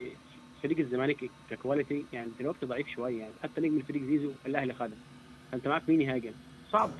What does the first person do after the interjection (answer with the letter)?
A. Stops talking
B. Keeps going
A